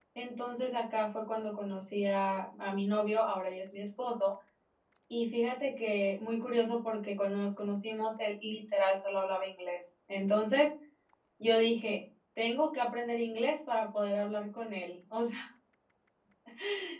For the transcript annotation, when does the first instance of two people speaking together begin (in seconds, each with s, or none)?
none